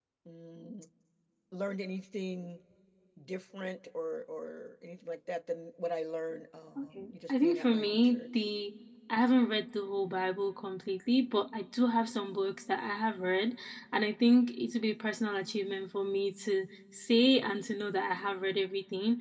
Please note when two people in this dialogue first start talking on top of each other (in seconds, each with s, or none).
6.8 s